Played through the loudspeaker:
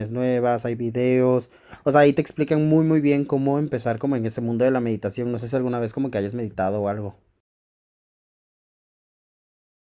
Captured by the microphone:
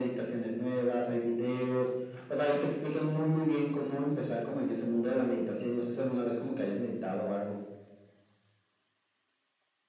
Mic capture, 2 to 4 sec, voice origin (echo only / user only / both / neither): echo only